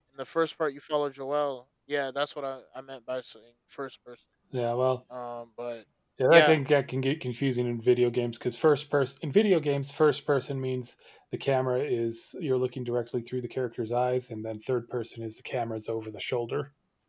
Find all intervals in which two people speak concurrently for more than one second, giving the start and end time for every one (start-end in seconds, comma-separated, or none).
none